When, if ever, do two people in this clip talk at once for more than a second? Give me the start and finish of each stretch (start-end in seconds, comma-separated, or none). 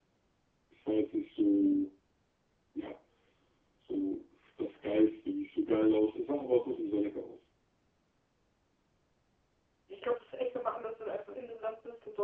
none